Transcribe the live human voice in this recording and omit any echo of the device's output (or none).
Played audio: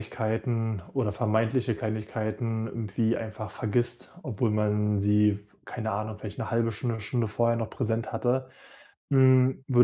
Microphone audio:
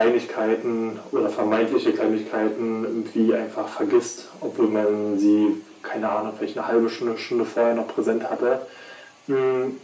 none